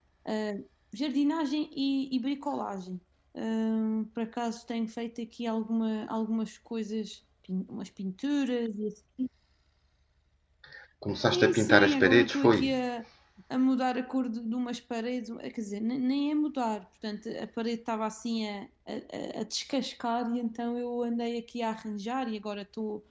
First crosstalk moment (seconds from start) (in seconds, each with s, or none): 11.3 s